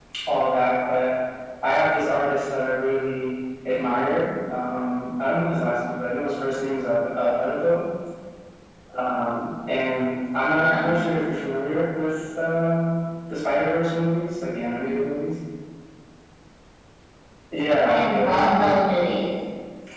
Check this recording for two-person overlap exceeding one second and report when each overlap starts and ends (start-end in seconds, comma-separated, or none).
17.8-19.1